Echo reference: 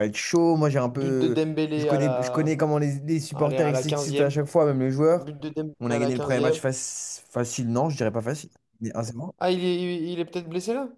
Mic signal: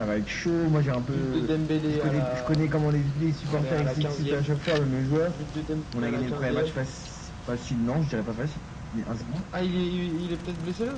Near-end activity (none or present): none